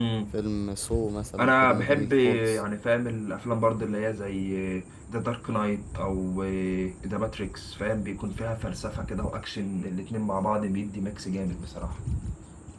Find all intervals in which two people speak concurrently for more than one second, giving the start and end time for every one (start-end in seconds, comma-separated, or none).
1.4-2.6